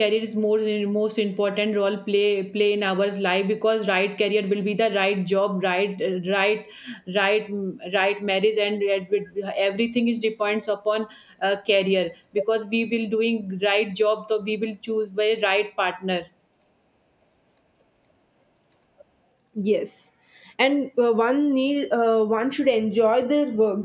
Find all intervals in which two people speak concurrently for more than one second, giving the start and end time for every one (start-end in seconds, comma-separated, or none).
none